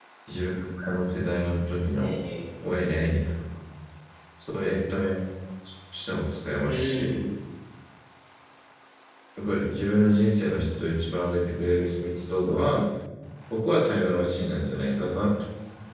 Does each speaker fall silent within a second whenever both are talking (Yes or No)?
Yes